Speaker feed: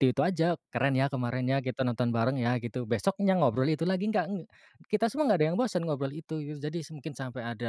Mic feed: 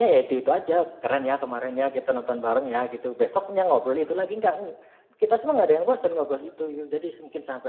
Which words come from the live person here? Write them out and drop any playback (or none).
none